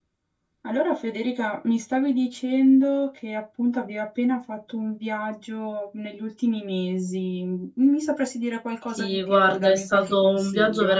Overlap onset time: 9 s

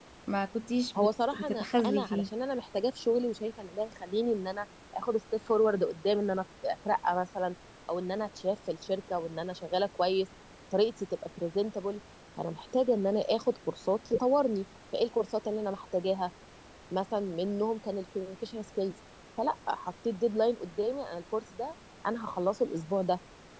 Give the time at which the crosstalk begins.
1 s

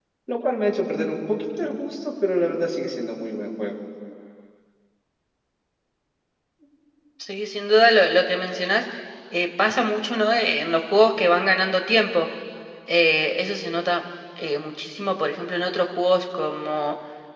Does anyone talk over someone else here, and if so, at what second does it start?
none

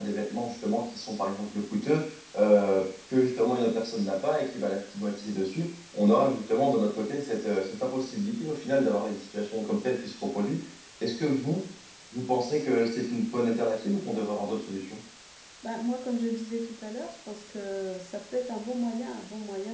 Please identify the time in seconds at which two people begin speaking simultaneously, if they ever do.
none

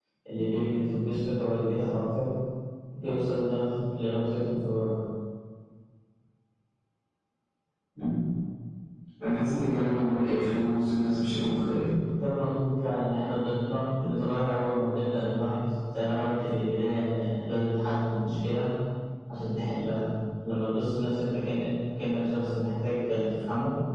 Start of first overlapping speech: none

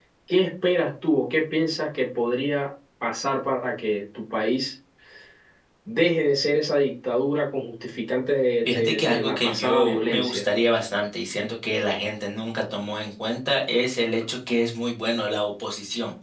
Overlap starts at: 9 s

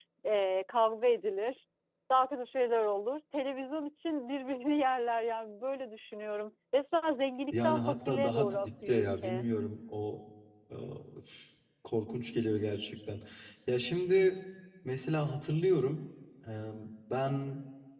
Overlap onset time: 8 s

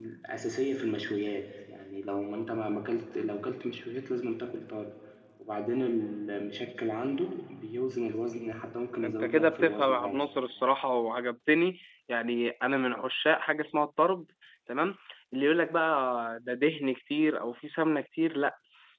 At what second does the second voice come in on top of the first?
9 s

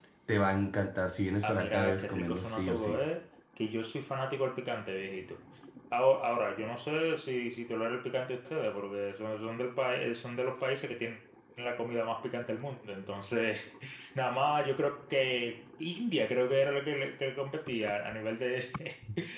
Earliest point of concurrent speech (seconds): 1 s

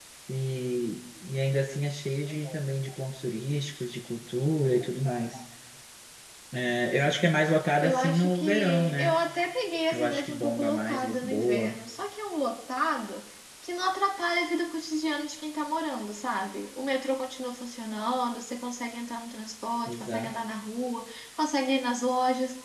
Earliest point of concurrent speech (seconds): 8 s

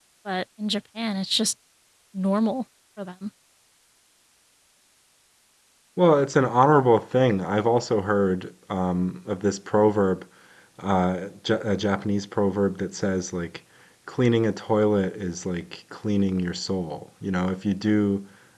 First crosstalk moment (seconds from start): none

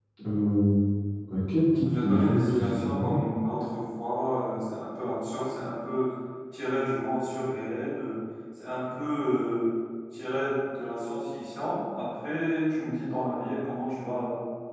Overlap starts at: 2 s

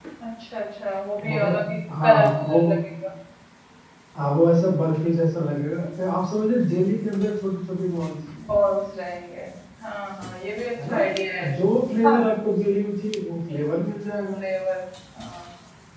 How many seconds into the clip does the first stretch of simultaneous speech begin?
1 s

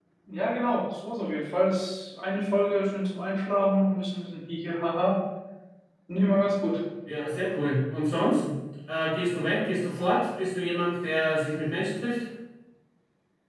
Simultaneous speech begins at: none

